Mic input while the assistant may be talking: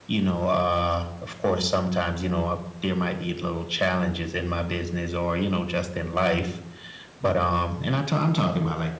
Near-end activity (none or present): none